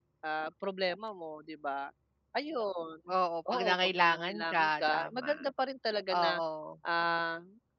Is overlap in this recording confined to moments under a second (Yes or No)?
No